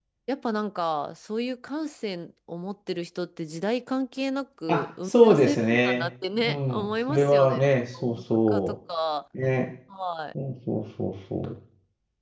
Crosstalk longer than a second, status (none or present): present